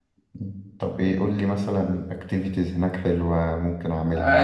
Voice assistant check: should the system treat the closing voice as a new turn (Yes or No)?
Yes